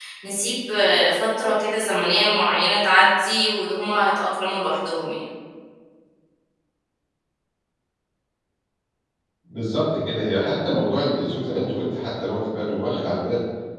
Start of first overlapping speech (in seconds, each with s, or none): none